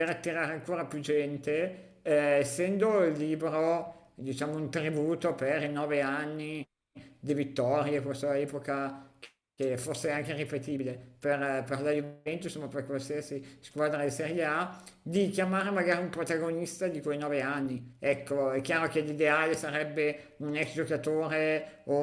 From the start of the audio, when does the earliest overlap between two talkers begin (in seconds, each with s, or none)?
none